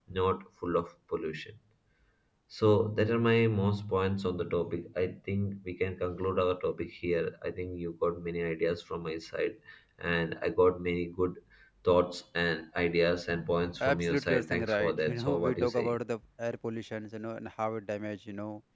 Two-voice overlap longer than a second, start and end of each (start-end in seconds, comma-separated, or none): 13.8-16.0